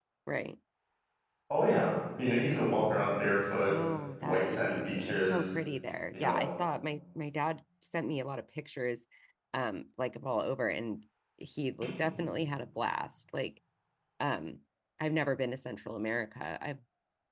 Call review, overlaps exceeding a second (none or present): present